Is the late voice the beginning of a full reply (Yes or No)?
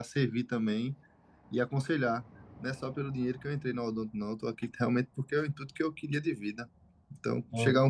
No